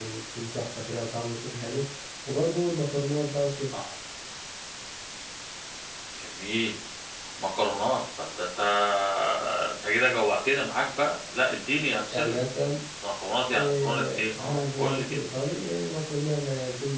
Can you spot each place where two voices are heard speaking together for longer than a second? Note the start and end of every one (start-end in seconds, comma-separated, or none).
13.5-15.2